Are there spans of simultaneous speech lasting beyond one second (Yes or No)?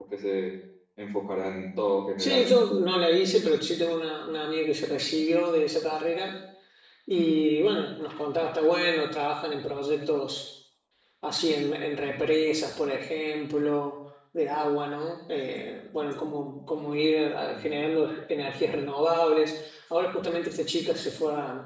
No